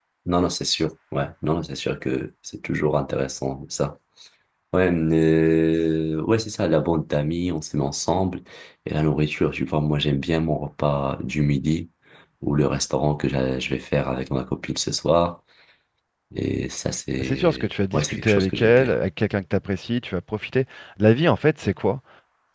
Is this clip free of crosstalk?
No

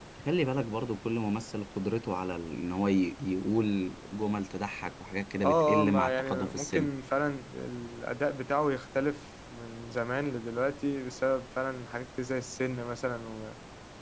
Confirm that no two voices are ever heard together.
No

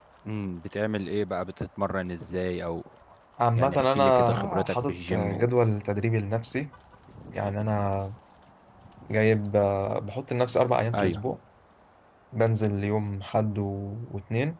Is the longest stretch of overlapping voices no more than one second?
No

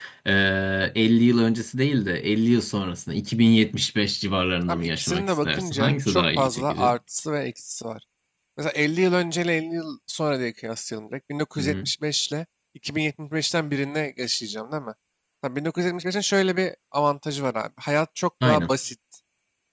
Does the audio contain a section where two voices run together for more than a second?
Yes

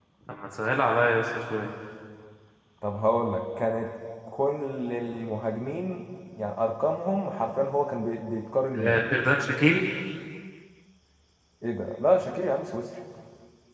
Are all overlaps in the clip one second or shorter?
Yes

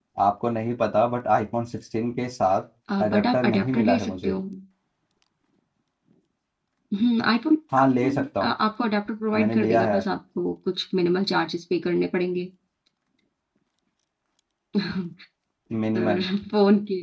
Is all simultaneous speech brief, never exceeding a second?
No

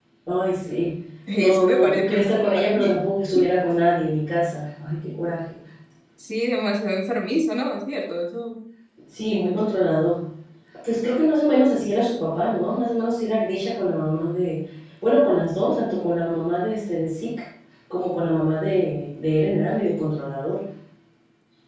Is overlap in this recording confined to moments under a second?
No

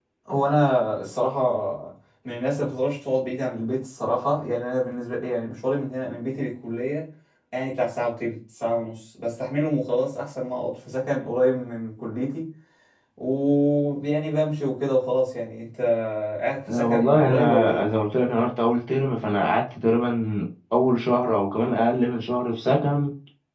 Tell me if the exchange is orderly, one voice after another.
No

